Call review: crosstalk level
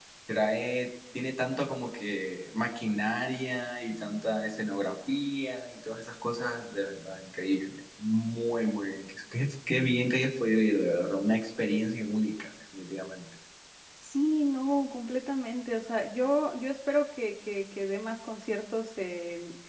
none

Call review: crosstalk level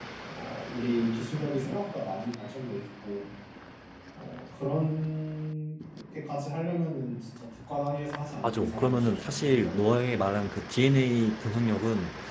present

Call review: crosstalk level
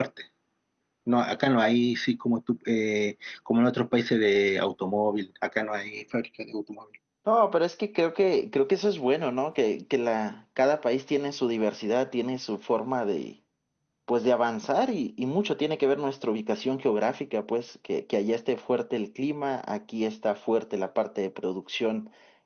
none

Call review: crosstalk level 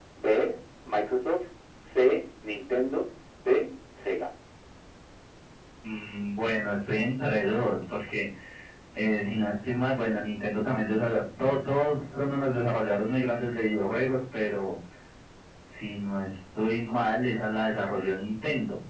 none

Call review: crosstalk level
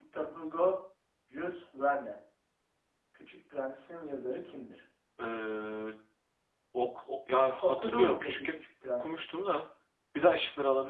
present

